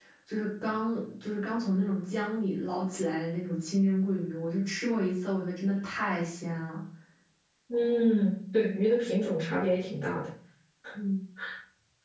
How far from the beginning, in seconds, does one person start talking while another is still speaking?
none

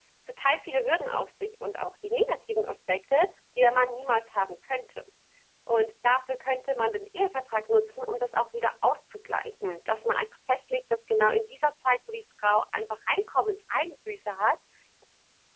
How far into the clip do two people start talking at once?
none

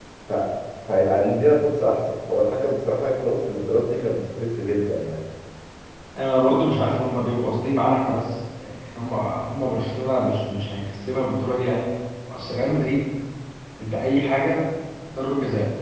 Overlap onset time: none

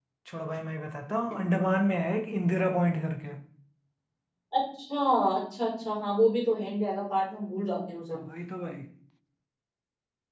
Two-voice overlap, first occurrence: none

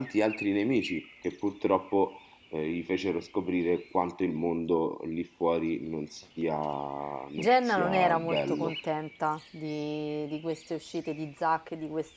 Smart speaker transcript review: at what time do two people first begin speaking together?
7.4 s

